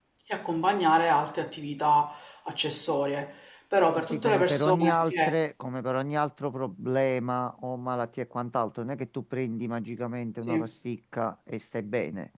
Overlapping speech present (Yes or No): Yes